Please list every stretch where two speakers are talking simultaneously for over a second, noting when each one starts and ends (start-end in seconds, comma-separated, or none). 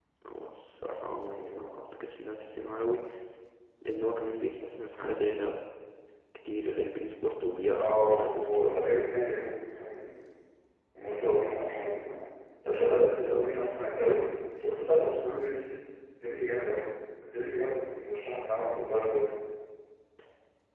7.8-9.2